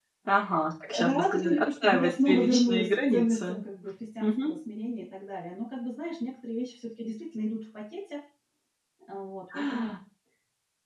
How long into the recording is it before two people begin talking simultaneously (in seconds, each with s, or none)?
1.1 s